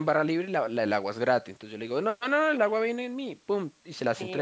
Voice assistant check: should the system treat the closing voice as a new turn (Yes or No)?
No